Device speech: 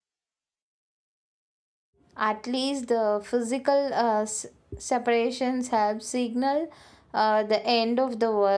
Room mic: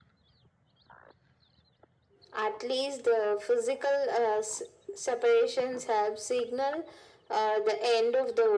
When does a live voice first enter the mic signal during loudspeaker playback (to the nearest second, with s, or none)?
none